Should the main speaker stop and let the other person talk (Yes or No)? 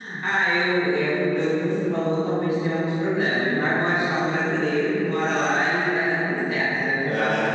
No